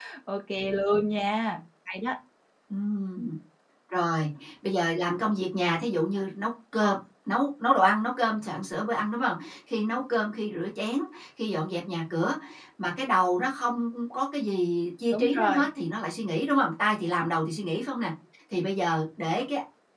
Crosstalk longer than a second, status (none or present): none